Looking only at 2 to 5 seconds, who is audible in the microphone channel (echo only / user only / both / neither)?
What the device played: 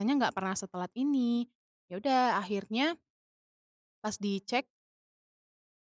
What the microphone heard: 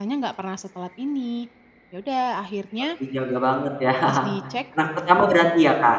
both